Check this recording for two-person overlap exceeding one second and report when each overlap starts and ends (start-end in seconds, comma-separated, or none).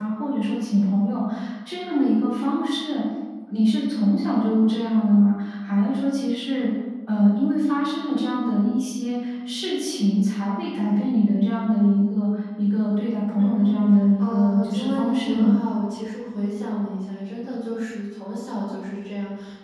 14.2-15.5